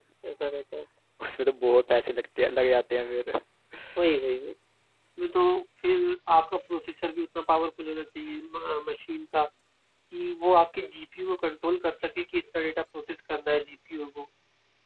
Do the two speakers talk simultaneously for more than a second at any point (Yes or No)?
No